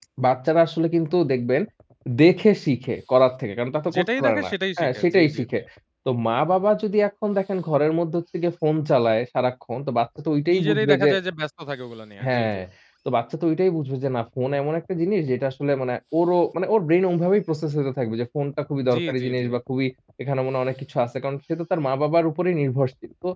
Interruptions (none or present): present